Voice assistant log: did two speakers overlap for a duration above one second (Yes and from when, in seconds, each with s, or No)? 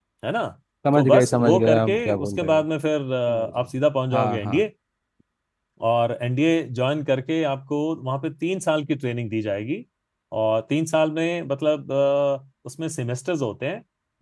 Yes, from 1.0 s